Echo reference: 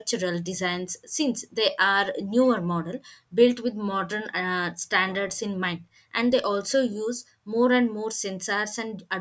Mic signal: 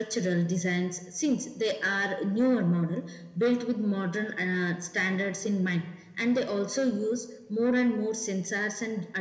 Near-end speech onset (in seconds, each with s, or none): none